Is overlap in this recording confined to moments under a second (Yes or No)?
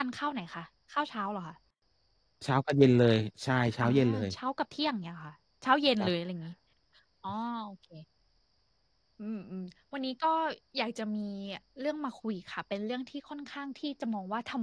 Yes